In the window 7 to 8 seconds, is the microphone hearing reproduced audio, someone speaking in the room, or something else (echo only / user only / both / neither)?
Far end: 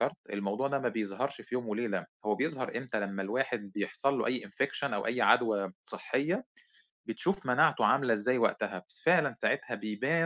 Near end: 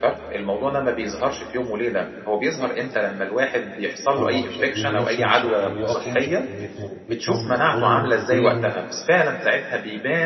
both